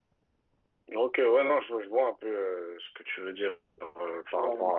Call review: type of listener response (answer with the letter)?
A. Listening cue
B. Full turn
A